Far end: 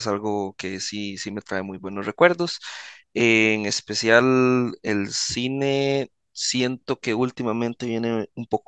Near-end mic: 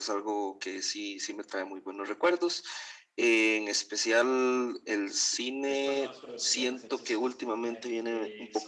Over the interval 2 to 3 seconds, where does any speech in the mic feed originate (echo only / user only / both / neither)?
echo only